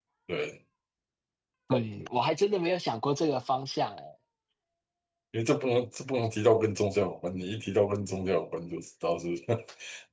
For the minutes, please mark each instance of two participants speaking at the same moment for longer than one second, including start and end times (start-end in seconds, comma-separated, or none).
none